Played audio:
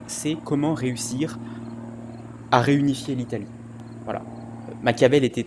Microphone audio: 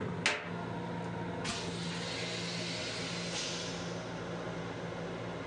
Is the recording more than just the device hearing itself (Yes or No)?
No